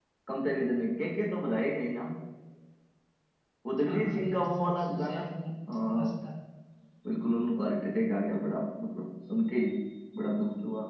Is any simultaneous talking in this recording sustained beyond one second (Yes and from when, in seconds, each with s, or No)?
Yes, from 3.8 s